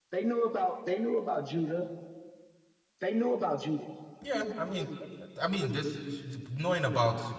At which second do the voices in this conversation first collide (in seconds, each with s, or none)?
none